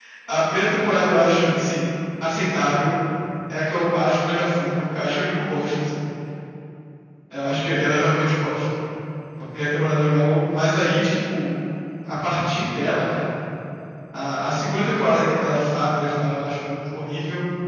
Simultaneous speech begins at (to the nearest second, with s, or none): none